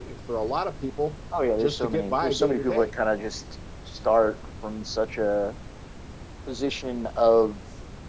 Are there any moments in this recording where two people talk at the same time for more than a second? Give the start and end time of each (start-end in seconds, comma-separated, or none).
1.6-2.9